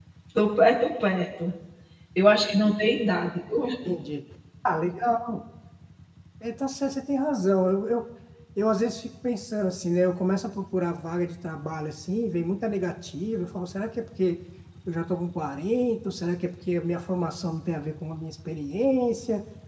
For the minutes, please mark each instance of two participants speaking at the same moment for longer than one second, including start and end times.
none

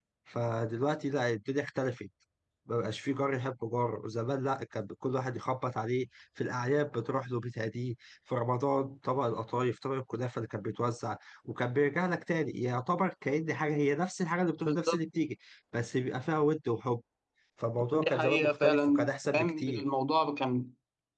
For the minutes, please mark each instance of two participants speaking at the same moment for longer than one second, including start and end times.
17.9-19.8

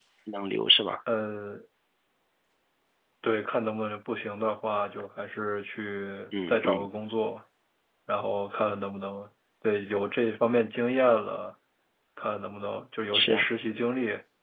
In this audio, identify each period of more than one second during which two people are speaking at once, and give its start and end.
none

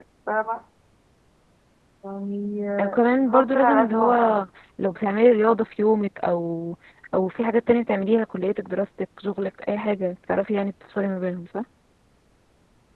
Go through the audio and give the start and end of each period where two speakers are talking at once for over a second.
2.8-4.3

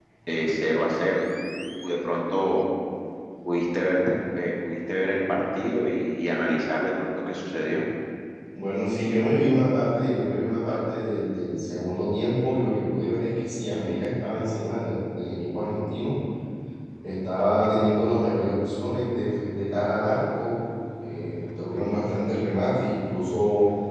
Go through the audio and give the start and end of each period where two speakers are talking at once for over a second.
none

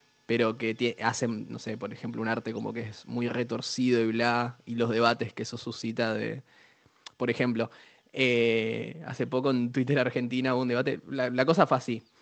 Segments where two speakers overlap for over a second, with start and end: none

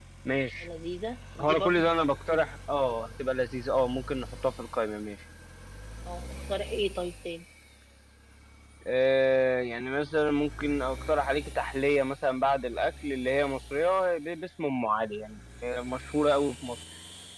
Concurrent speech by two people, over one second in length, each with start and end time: none

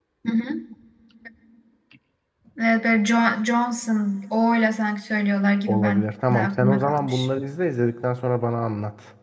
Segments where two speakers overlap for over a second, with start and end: 5.7-7.3

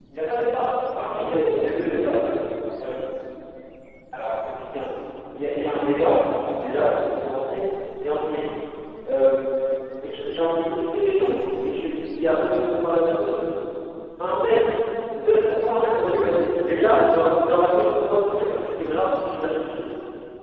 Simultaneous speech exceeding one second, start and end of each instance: none

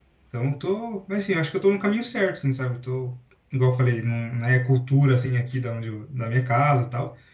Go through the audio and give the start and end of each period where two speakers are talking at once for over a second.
none

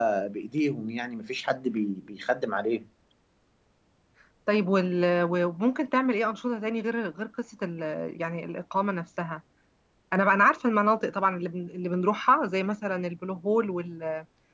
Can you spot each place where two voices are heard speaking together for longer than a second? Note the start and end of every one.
none

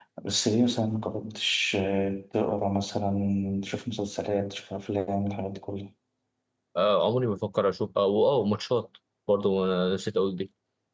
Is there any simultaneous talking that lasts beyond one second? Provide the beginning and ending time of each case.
none

